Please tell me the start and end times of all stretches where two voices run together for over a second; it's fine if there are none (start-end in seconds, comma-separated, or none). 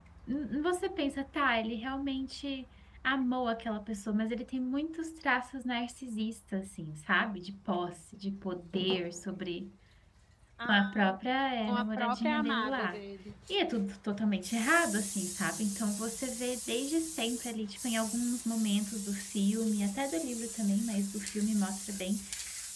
11.7-13.0